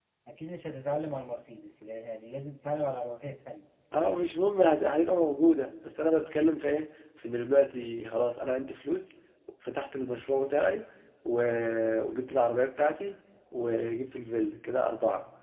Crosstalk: none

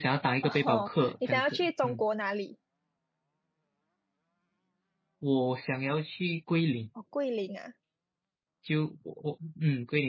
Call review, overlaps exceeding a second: present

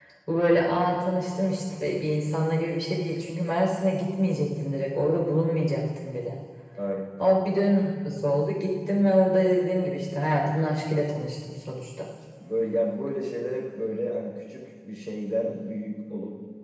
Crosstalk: none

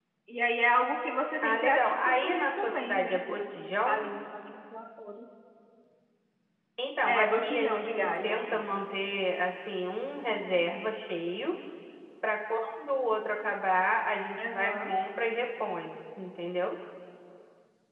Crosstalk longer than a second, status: present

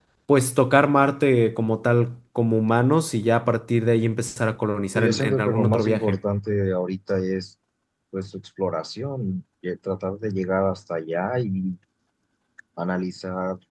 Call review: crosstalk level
present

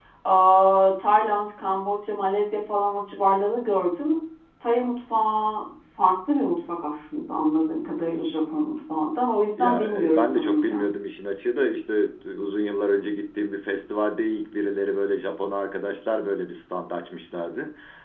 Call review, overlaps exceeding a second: present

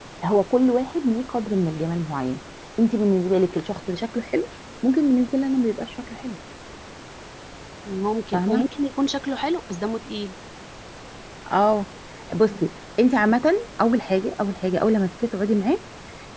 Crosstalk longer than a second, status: none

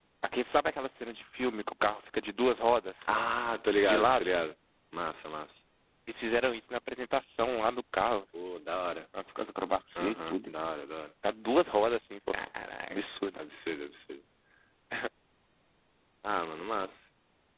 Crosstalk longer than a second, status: none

